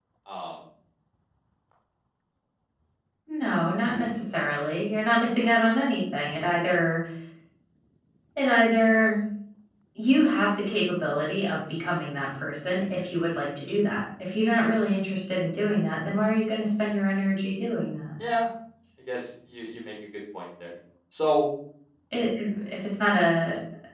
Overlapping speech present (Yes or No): No